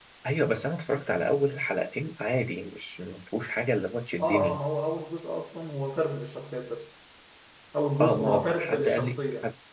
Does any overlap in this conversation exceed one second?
Yes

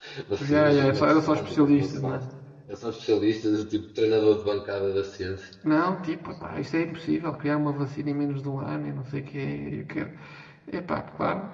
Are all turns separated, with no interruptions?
No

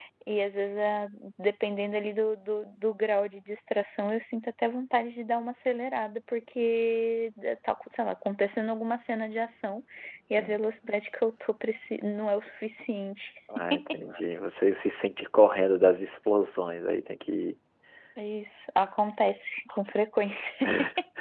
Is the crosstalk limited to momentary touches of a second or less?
Yes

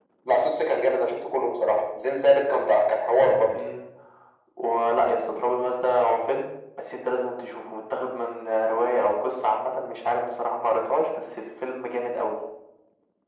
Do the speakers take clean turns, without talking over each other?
Yes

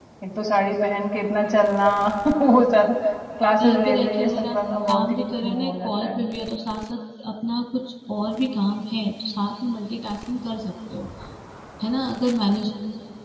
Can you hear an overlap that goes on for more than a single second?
Yes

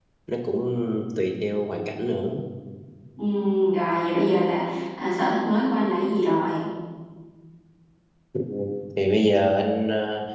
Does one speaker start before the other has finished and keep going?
No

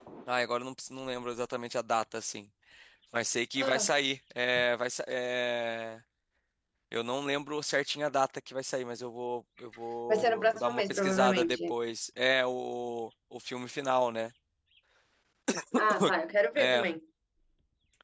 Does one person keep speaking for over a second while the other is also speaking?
Yes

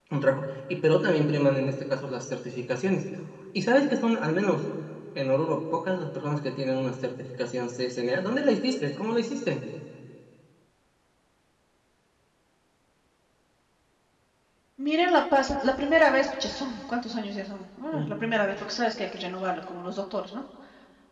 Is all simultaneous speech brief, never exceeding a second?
Yes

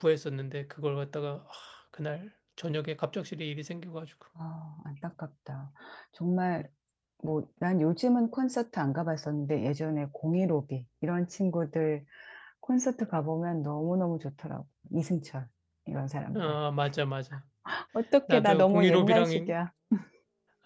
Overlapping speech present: Yes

